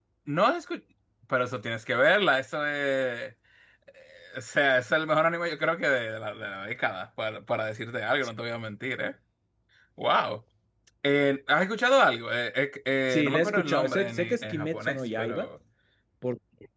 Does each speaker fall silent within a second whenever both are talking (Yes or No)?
No